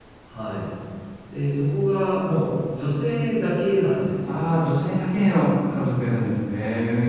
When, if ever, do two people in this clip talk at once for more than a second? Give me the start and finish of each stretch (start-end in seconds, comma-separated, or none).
none